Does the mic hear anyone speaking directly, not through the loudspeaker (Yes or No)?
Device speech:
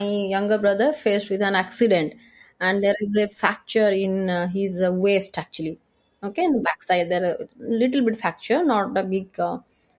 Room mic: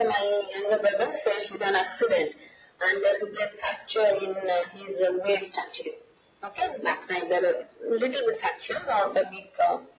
No